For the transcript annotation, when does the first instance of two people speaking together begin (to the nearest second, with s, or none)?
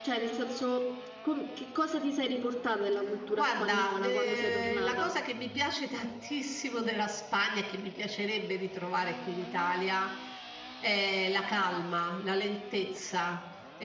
3 s